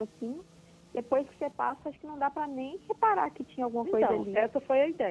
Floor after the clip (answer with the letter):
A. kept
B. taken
B